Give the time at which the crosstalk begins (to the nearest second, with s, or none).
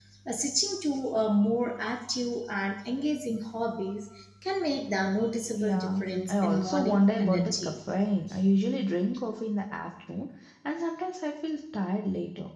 6 s